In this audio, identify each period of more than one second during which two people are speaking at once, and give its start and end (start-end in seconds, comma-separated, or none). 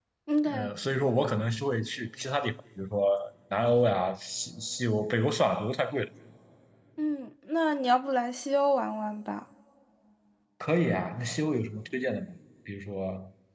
none